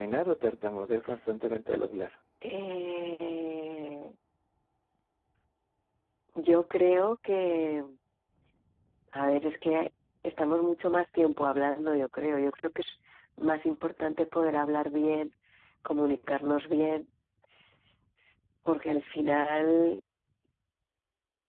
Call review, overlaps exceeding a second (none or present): none